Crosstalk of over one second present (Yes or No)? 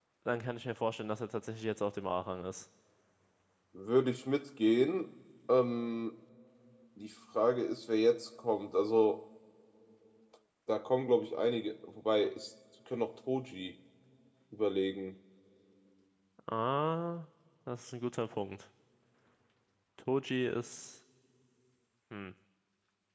No